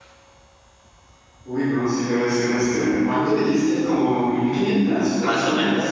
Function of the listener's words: taking over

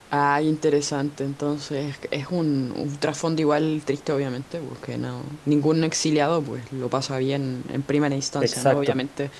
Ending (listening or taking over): listening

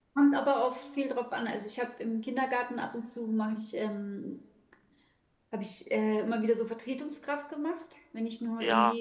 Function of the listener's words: taking over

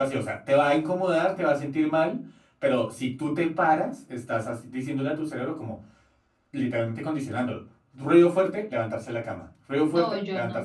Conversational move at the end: taking over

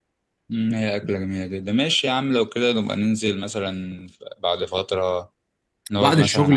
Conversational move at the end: taking over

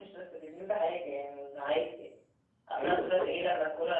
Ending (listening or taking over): listening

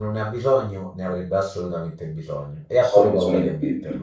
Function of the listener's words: taking over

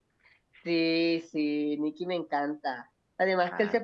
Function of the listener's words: listening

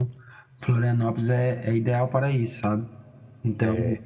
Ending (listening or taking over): taking over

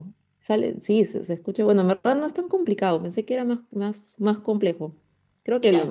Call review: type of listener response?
listening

